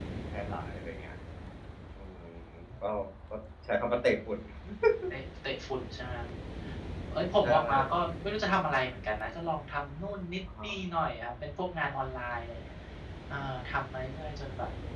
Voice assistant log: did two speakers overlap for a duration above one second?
No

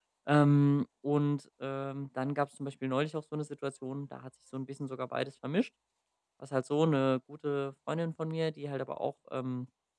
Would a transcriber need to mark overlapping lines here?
No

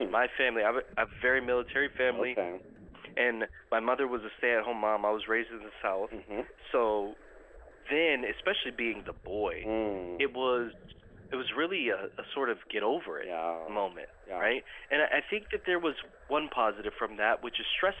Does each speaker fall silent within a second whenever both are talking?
Yes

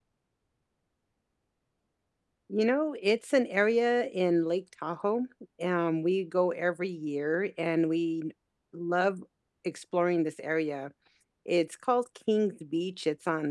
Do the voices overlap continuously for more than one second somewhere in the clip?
No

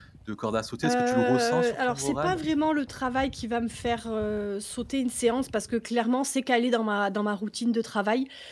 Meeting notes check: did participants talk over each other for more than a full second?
Yes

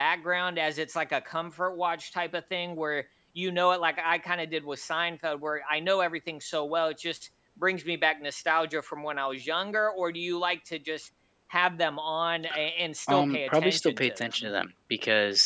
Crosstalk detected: Yes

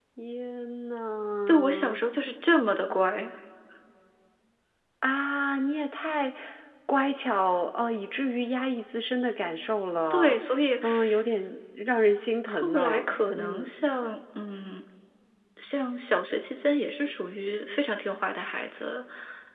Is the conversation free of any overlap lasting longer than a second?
No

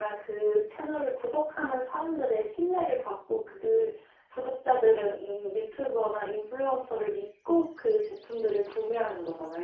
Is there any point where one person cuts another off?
No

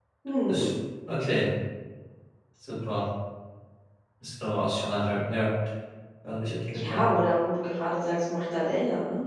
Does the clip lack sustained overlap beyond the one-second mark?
Yes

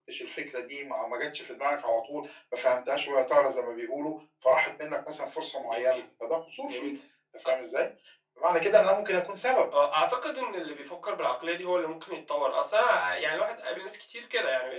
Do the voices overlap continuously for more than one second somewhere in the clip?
No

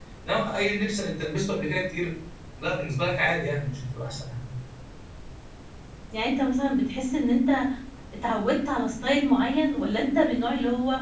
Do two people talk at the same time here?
No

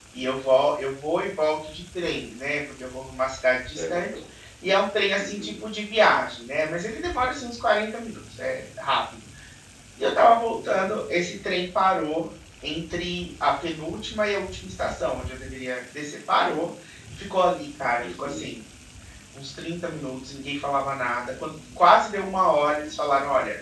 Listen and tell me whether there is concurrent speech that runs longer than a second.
No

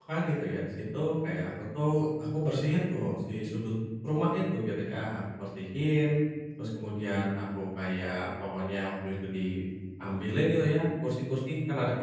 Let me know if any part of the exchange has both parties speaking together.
No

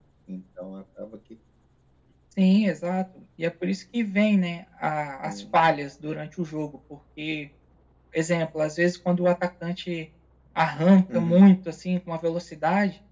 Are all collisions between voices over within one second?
Yes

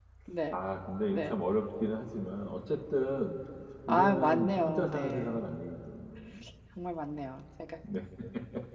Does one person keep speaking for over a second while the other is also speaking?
Yes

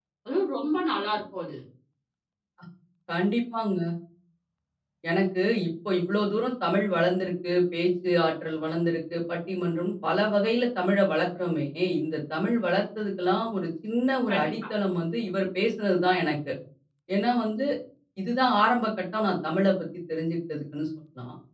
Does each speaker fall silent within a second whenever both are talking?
Yes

